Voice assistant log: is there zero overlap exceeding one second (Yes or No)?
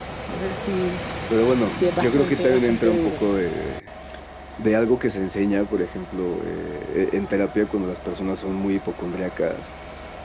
No